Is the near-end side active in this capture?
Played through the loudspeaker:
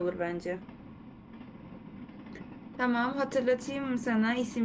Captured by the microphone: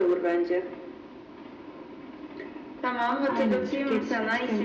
Yes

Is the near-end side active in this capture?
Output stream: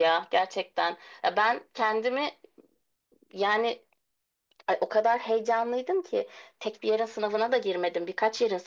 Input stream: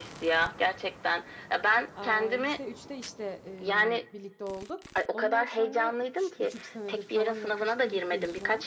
Yes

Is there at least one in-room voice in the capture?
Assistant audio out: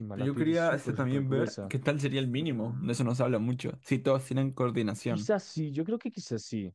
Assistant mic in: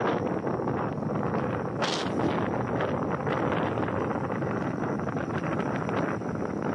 No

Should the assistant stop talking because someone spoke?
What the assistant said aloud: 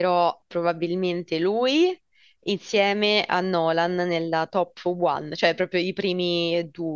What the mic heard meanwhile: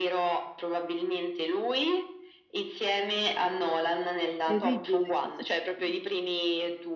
Yes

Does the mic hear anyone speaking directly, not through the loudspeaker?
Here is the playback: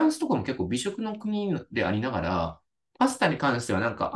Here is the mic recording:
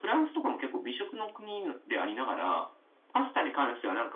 No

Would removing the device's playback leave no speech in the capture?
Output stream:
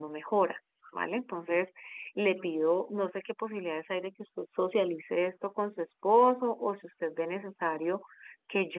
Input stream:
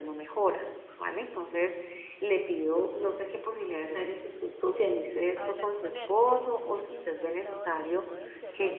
No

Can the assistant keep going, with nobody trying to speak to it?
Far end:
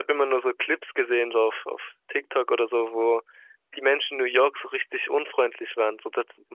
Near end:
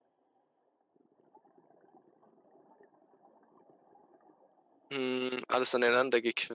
No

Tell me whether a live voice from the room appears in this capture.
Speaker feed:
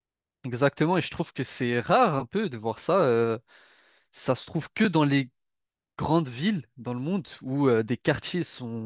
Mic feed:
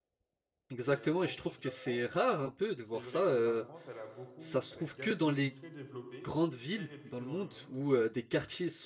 Yes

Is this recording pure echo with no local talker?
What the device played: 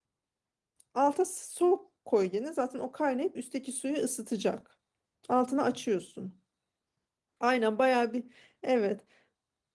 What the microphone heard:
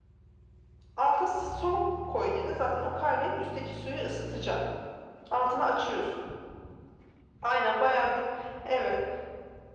Yes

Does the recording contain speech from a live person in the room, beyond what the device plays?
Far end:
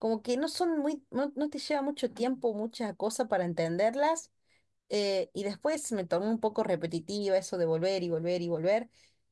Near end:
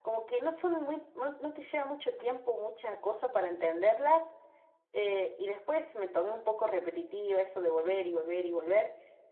No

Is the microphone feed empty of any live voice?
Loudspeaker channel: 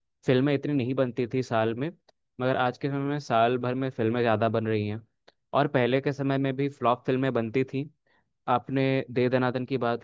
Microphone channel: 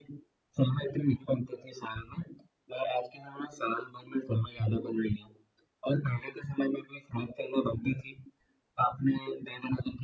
Yes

